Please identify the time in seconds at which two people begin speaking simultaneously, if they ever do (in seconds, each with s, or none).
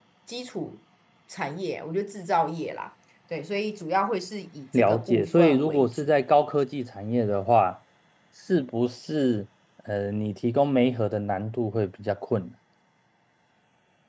4.7 s